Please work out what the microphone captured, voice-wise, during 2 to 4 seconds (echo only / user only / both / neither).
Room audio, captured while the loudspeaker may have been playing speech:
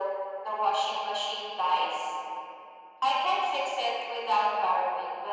echo only